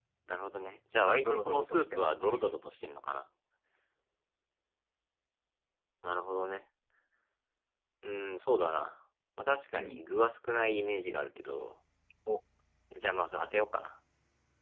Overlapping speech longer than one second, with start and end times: 1.1-2.5

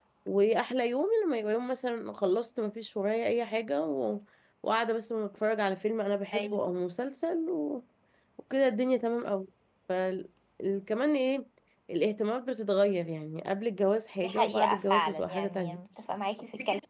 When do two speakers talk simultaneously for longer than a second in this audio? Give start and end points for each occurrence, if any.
14.2-15.8

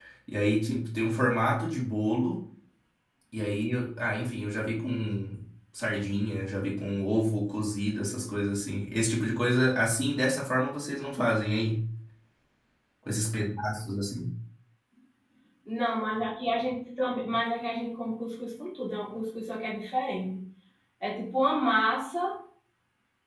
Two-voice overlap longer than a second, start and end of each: none

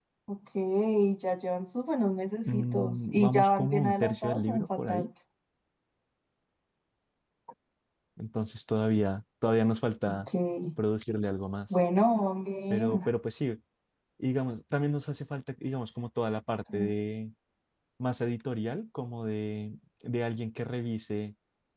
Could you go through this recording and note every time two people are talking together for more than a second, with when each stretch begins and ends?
2.4-5.1

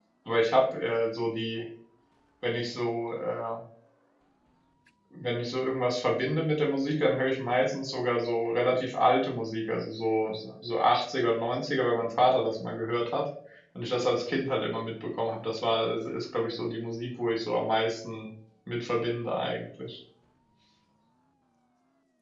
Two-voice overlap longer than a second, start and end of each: none

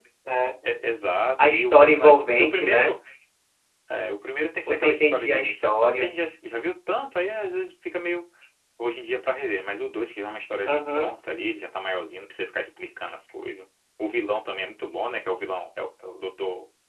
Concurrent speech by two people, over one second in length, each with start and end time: 1.4-2.9, 4.7-6.1

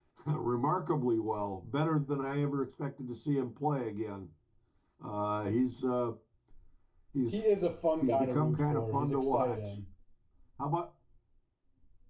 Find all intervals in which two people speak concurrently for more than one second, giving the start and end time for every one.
8.0-9.6

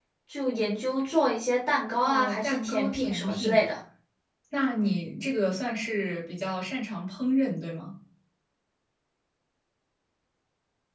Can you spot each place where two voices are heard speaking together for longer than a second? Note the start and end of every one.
2.0-3.6

